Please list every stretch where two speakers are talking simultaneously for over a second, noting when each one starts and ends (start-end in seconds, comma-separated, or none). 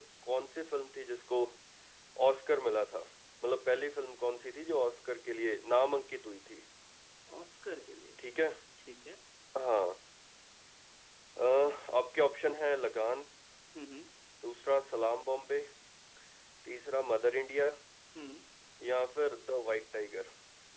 none